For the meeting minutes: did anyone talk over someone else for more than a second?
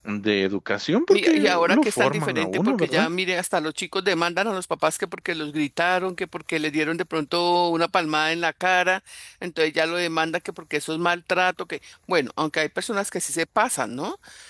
Yes, from 1.1 s

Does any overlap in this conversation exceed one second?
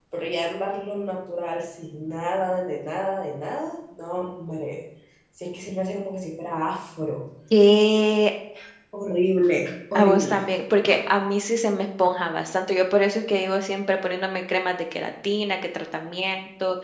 No

